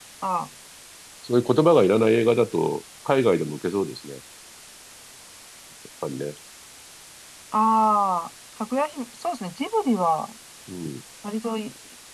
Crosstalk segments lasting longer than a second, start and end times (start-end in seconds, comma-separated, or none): none